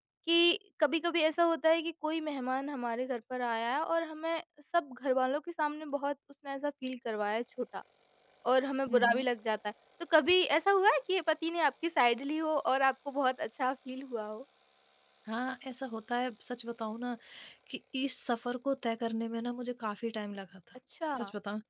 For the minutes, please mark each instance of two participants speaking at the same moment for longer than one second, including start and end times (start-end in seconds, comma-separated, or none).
none